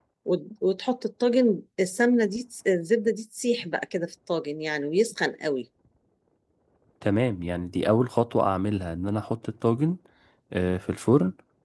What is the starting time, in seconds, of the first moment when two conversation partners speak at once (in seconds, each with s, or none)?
none